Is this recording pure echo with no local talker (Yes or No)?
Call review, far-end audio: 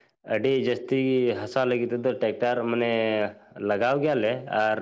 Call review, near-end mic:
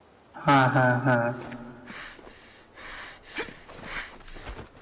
No